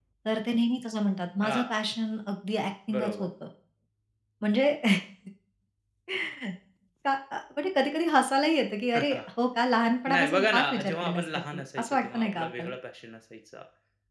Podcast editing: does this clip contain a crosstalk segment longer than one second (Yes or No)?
Yes